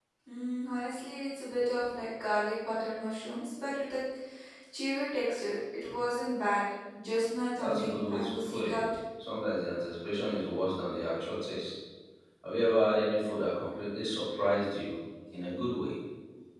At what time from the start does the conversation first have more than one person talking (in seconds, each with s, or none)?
7.6 s